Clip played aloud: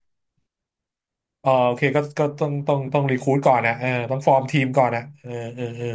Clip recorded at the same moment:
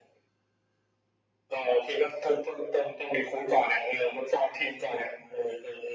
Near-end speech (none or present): none